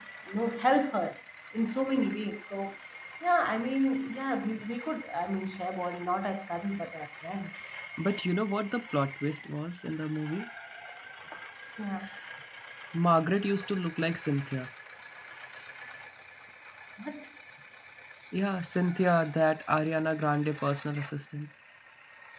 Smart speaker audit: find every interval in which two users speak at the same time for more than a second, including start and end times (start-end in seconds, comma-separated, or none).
none